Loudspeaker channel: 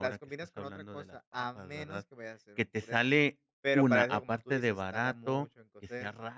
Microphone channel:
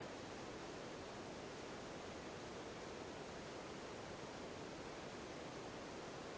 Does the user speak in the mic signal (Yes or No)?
No